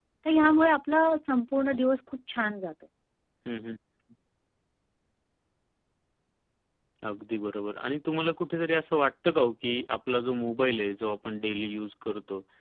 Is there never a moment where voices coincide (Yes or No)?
Yes